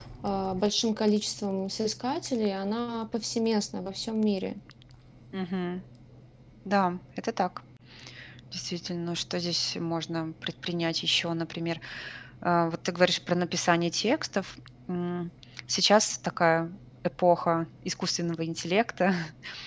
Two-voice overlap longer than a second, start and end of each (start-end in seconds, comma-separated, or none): none